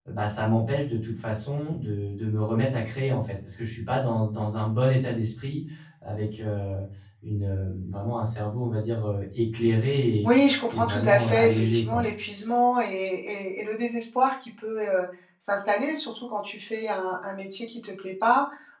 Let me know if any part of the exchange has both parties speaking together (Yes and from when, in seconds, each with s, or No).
Yes, from 10.7 s